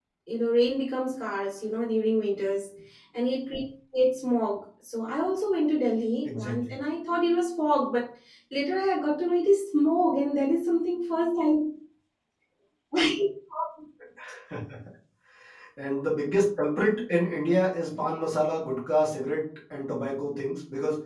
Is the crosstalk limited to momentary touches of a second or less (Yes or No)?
Yes